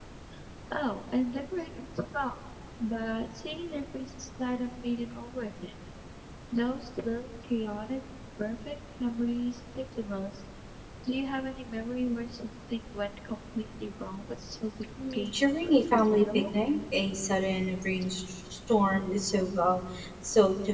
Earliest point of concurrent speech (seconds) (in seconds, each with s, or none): 15.0 s